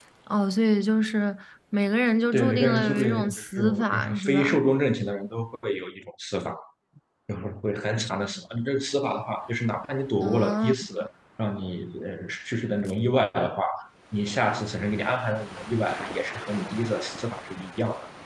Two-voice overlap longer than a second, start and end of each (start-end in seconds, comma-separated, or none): 2.3-4.6